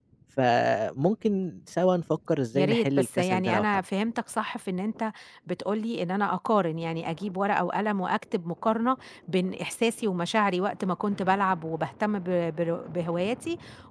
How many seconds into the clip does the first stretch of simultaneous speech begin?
2.5 s

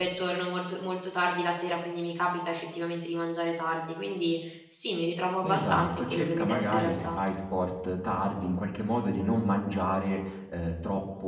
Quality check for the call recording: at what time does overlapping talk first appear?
5.4 s

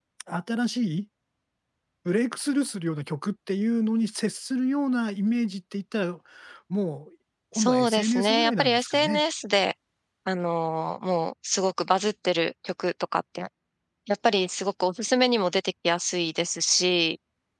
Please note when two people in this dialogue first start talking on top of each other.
7.5 s

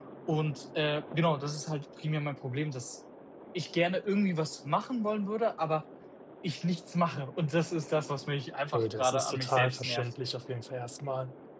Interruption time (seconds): 8.7 s

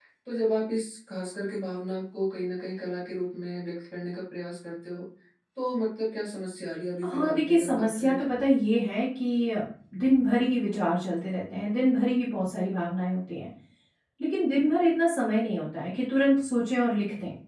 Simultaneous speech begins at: 7.0 s

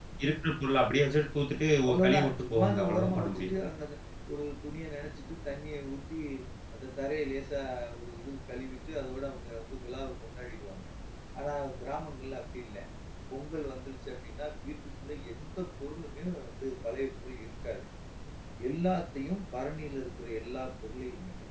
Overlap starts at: 1.8 s

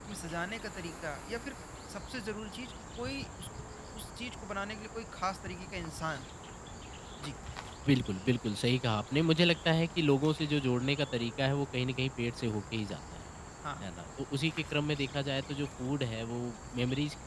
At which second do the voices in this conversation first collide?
none

